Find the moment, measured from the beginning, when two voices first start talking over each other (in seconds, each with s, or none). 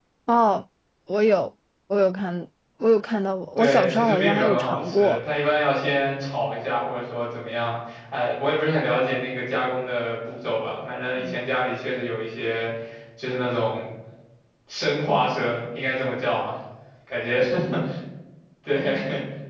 3.6 s